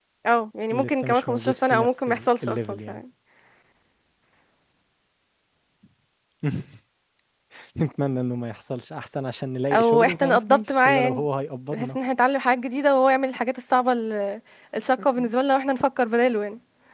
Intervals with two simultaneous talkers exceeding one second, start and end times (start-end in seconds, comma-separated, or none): 0.7-2.9, 9.7-11.2